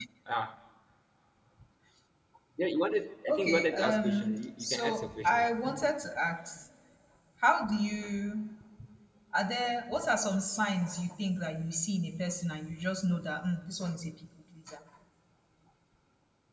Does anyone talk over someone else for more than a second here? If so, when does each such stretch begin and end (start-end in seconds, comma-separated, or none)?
3.3-5.5